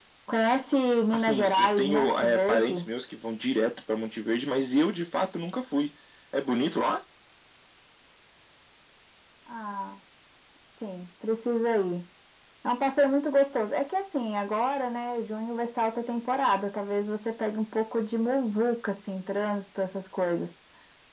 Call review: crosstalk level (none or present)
present